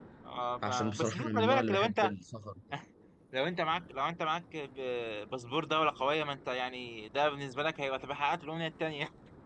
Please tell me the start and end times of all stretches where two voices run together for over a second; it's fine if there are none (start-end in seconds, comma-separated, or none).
0.6-2.1